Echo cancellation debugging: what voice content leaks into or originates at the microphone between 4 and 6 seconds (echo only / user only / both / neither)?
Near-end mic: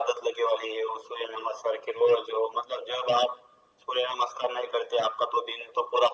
echo only